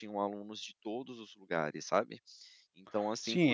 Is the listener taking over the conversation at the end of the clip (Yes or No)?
Yes